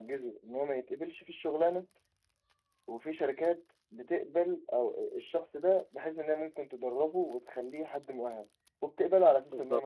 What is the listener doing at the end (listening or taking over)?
listening